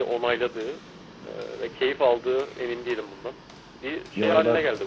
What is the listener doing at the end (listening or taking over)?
taking over